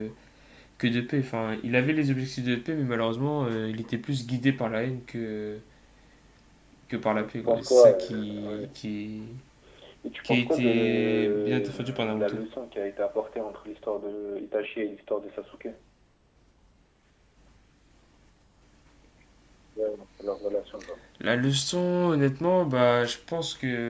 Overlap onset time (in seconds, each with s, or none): 7.2 s